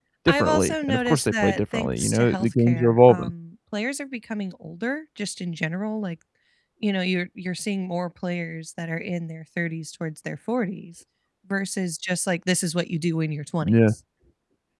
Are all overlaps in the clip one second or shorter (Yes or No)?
No